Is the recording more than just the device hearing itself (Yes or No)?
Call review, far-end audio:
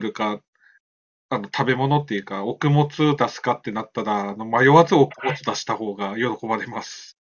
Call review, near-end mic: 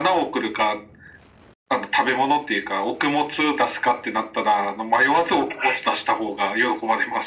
No